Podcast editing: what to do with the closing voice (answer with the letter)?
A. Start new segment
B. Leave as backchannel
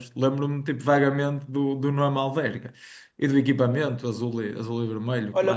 A